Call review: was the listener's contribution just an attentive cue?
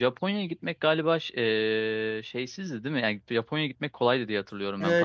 No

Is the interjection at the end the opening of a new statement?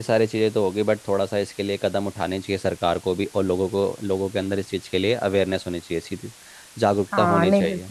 Yes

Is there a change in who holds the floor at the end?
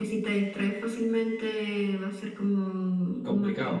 Yes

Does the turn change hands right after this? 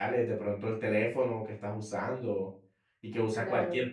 No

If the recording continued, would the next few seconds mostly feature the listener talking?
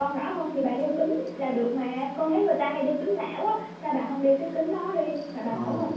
Yes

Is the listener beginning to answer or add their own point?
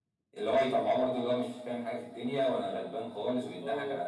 No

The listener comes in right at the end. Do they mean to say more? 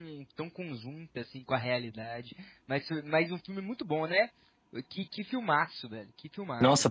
Yes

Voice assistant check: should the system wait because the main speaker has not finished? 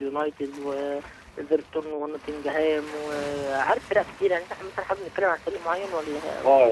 No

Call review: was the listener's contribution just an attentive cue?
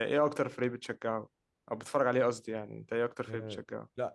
No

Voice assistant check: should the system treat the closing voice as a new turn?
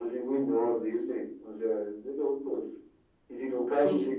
No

